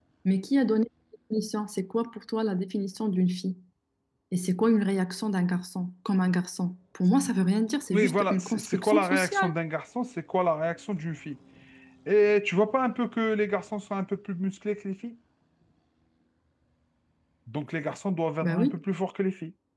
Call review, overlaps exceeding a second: present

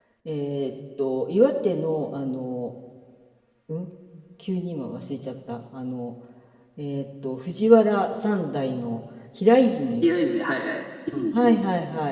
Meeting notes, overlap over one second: none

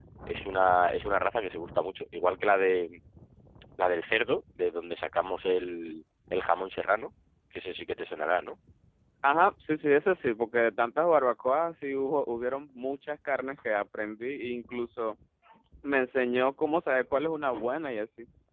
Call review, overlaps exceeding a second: none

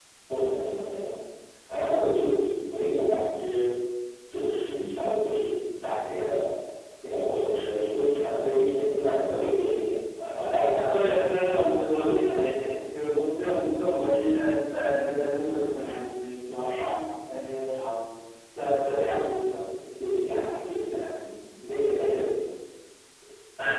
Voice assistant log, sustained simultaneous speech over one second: none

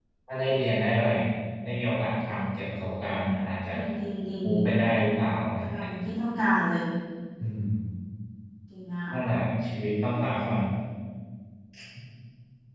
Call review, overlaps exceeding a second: none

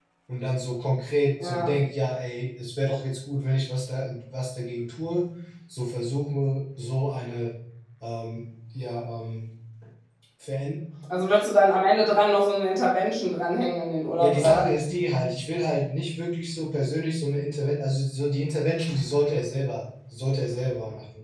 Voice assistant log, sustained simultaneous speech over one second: none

